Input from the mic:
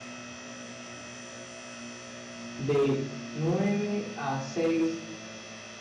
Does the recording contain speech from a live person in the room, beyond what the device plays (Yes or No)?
Yes